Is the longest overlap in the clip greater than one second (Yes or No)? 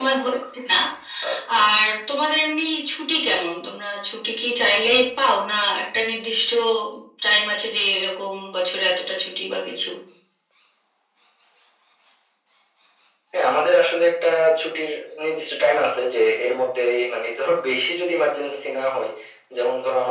No